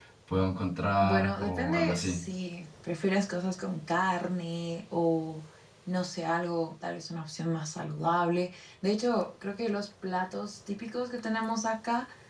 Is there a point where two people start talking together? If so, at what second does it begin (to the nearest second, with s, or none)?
1 s